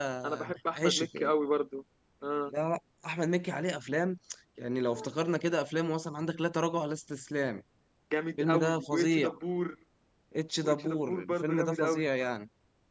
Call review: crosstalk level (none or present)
present